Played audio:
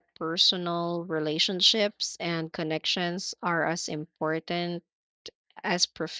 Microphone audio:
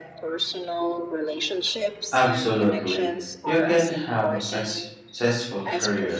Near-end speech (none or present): present